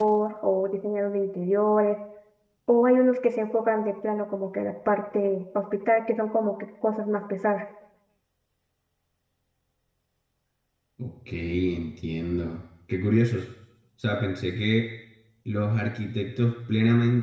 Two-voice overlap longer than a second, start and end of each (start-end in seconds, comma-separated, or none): none